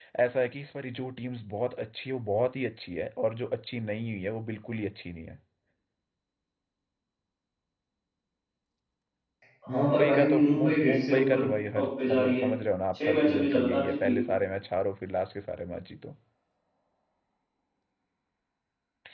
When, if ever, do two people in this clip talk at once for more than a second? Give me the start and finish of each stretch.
9.8-12.5, 12.9-14.2

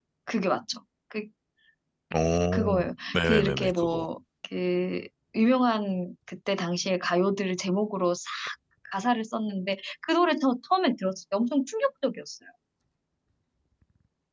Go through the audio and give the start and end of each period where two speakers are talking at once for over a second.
2.5-4.1

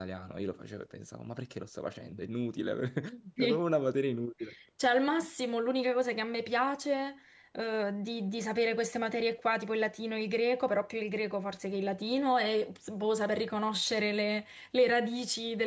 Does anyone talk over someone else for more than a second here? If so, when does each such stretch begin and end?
none

